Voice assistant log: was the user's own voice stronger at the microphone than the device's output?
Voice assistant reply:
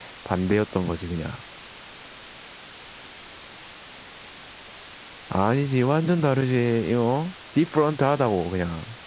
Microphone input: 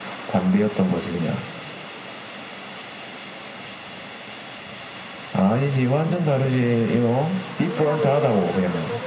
No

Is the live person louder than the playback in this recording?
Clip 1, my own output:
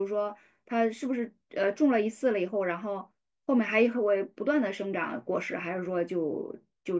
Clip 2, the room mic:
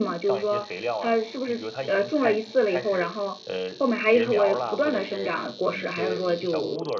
No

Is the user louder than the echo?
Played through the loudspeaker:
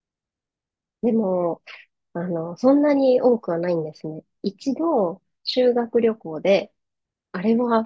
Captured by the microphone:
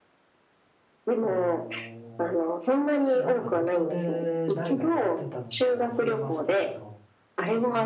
No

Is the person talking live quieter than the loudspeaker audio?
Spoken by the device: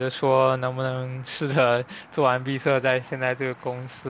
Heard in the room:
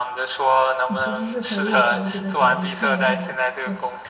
Yes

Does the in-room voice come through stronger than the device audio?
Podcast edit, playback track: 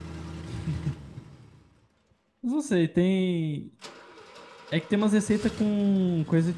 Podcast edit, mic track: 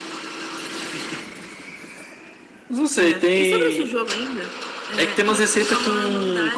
No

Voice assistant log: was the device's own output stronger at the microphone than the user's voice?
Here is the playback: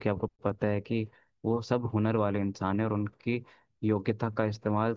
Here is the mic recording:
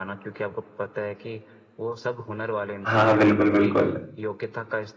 No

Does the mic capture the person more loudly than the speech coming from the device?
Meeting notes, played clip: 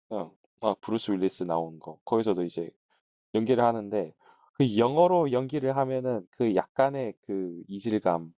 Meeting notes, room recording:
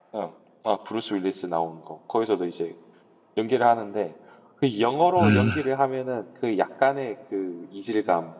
Yes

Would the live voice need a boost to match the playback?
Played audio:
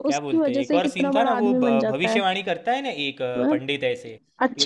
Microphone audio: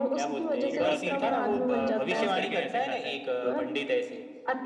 Yes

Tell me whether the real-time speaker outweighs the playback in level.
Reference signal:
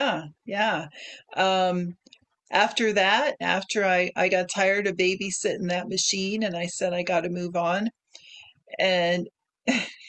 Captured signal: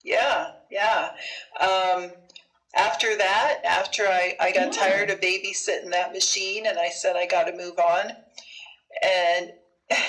No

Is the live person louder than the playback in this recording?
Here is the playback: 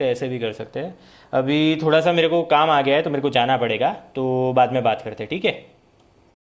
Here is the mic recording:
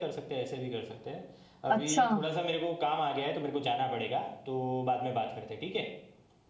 Yes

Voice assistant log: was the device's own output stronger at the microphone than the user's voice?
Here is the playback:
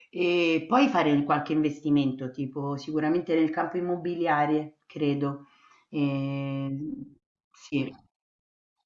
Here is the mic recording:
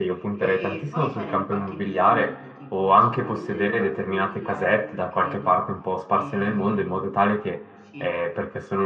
No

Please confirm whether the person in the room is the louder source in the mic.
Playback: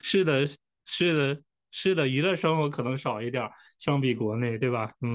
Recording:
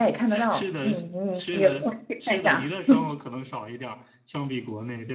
Yes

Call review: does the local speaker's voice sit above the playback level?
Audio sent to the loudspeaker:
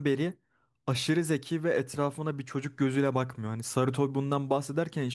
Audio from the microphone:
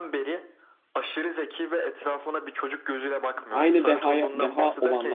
Yes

